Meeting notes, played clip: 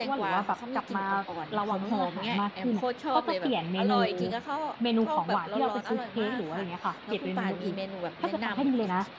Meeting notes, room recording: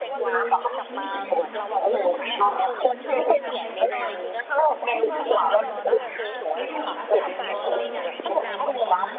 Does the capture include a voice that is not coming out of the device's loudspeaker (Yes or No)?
Yes